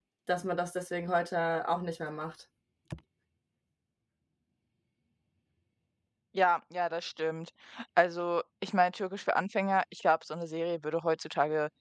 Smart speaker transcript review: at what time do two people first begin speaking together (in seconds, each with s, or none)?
none